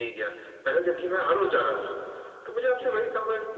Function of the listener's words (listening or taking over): listening